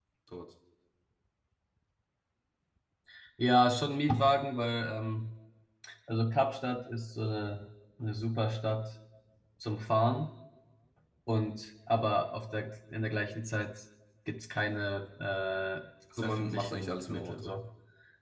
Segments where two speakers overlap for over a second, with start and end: 16.2-17.5

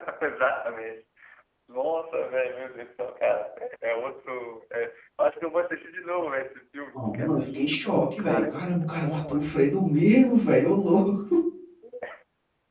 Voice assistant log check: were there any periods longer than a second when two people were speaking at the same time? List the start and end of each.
6.9-9.6

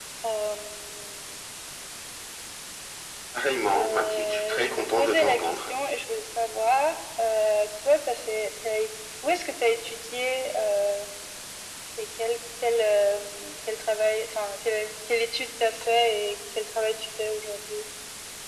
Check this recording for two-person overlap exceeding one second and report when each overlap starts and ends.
3.7-5.7

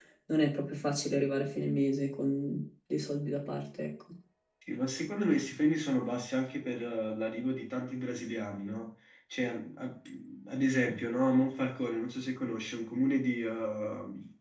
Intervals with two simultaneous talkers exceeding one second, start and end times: none

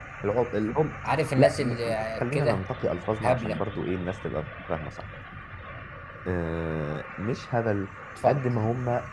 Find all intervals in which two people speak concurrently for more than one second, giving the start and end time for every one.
1.4-2.6

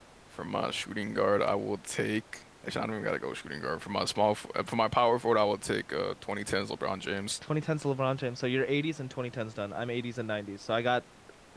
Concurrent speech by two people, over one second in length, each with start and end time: none

